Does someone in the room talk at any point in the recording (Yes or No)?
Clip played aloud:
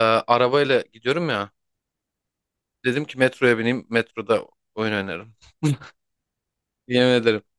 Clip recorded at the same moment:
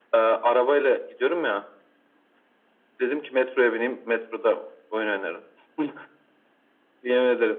No